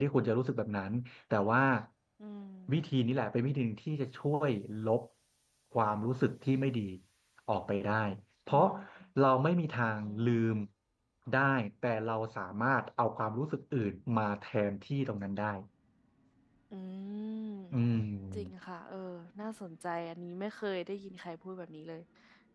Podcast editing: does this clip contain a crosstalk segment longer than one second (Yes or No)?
No